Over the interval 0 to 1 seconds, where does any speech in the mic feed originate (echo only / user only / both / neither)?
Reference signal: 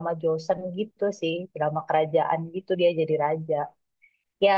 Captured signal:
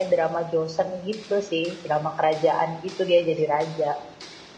echo only